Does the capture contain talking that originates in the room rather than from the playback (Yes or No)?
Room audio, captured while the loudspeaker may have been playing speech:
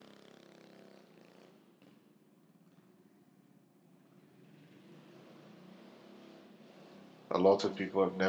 Yes